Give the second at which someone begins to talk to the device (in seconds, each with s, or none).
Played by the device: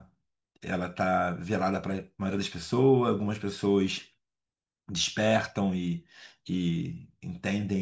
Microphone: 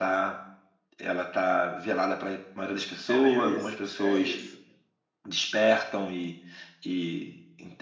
3.0 s